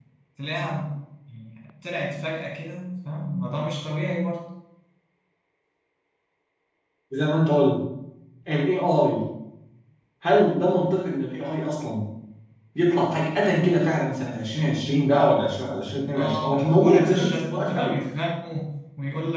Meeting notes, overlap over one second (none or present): present